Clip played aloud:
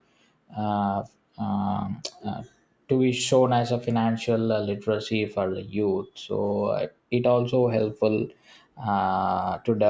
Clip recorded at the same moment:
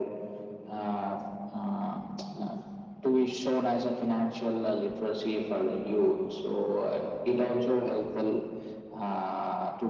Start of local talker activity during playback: none

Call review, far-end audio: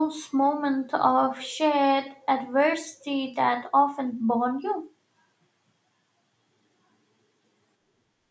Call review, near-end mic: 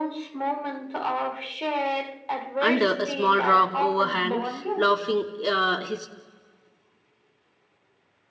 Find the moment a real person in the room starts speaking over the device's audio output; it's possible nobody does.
2.6 s

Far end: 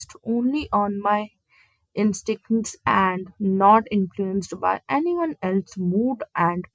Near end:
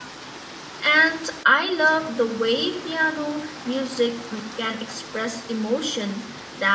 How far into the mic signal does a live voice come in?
0.8 s

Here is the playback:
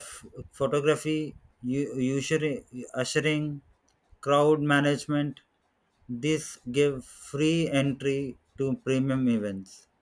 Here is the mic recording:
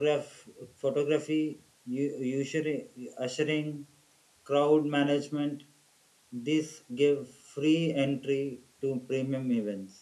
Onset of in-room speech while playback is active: none

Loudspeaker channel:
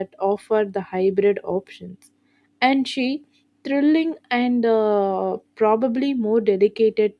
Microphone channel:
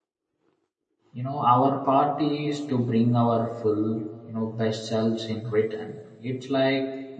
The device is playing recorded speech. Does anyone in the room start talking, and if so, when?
1.1 s

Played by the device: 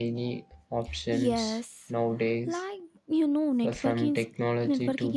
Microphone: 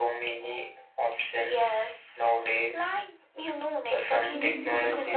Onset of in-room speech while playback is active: 4.2 s

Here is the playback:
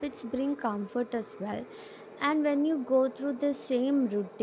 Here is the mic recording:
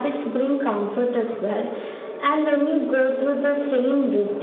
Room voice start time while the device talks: none

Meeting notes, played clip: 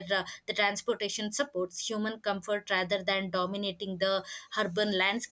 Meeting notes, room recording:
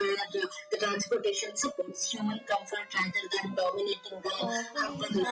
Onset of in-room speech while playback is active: 4.4 s

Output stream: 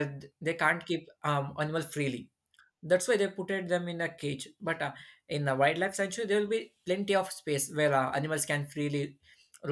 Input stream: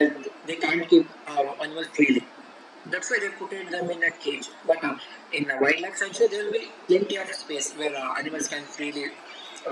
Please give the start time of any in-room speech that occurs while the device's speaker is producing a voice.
none

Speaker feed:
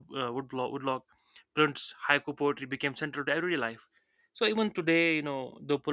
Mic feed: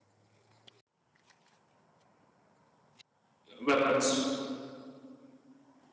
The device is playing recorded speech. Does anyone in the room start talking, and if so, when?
3.6 s

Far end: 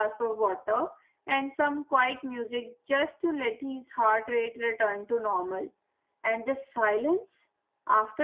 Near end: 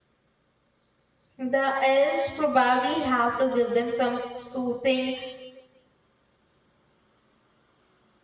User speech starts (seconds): 1.4 s

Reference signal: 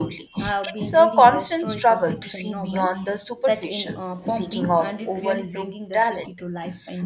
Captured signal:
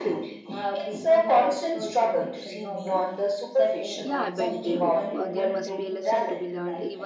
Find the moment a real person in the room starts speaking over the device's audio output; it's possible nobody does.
4.0 s

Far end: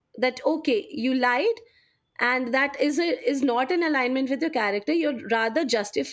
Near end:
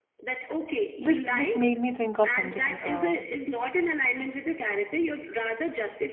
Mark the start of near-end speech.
1.0 s

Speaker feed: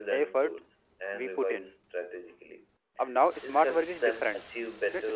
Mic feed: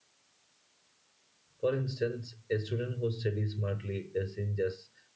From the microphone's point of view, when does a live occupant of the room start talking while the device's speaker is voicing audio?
1.6 s

